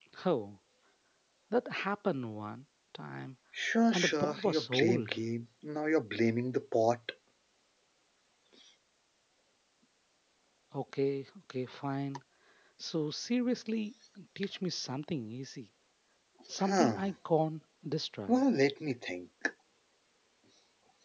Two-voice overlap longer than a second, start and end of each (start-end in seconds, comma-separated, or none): 3.9-5.1